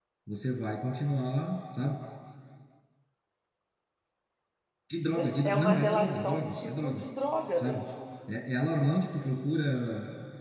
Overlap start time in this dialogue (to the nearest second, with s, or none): 5 s